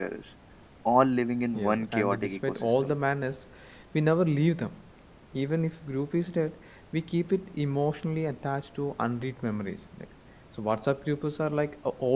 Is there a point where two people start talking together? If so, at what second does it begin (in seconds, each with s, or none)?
1.6 s